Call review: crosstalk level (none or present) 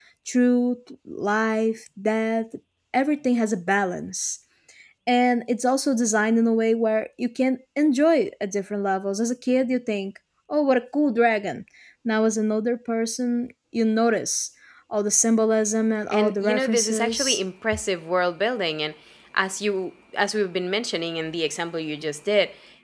present